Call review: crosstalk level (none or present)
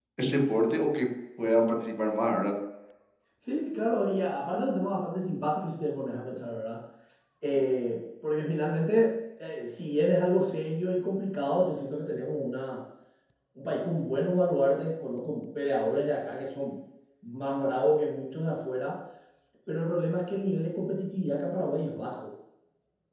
none